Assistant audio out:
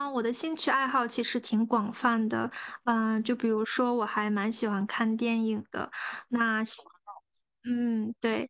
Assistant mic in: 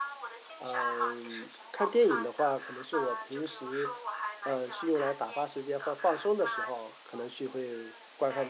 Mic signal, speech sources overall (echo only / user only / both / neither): both